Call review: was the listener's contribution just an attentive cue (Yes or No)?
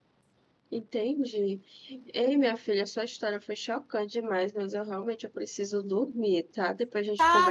No